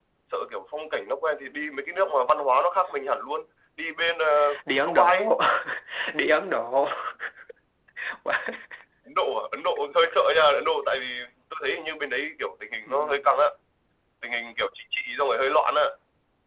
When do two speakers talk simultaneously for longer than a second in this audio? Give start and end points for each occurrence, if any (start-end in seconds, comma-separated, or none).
none